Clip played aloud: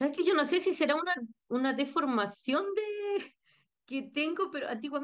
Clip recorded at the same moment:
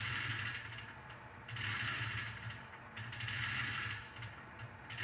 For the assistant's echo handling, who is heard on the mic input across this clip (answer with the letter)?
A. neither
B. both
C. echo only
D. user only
A